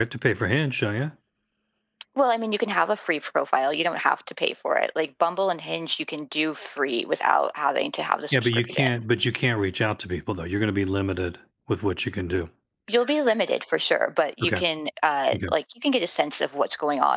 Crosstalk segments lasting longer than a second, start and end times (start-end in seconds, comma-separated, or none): none